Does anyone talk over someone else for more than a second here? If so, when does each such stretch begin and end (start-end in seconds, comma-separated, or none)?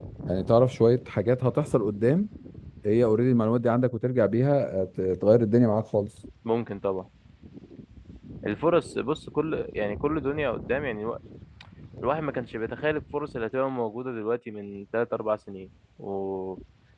none